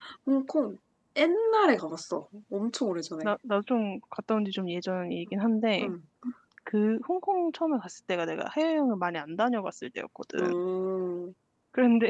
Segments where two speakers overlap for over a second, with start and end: none

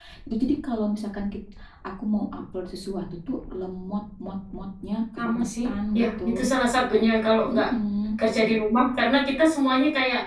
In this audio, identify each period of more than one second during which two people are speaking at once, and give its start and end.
5.2-6.5

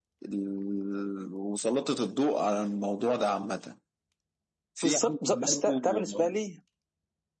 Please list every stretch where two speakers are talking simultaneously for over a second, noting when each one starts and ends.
4.8-6.3

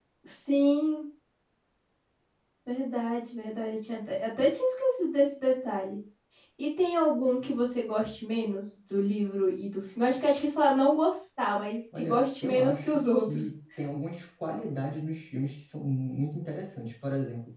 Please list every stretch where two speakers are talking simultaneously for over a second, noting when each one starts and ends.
12.0-13.5

